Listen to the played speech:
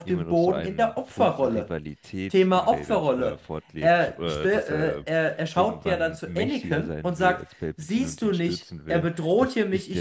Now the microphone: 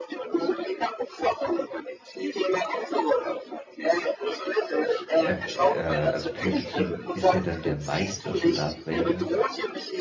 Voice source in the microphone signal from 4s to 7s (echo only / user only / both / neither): both